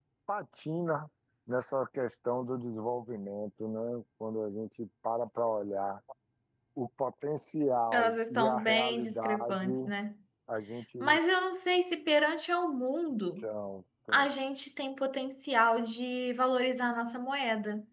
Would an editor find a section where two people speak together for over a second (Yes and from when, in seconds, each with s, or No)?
Yes, from 7.9 s